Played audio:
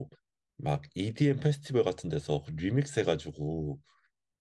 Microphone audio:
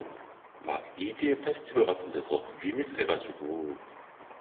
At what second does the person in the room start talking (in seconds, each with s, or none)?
none